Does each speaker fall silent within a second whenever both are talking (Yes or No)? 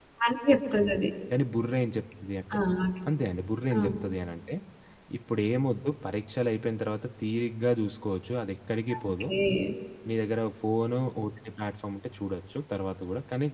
Yes